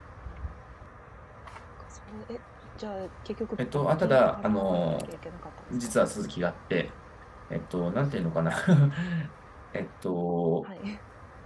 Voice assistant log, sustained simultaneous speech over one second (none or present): present